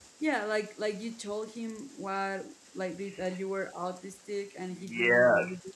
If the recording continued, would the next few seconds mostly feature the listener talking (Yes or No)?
Yes